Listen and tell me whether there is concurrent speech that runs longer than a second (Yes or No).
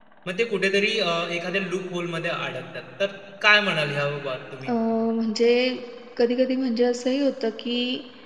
No